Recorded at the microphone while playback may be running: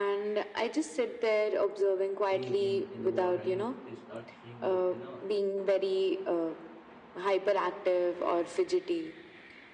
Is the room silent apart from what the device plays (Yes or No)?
No